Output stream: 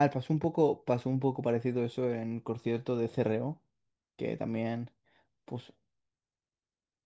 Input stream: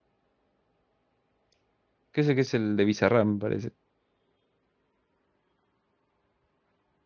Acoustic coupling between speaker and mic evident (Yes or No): No